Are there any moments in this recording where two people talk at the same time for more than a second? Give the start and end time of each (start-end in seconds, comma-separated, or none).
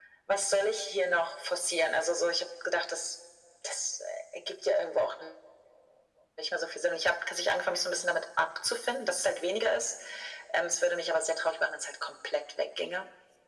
none